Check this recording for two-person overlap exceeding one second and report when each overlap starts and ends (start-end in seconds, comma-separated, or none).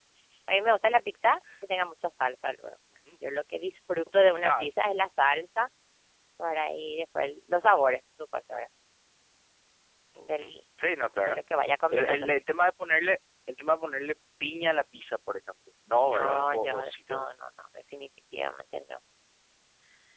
16.0-17.3